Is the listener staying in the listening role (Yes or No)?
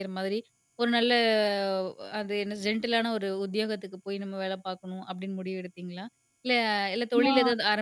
Yes